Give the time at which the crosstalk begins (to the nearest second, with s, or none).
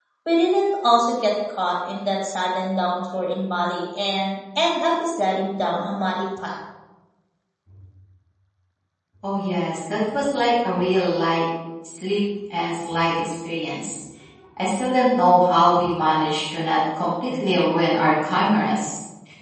none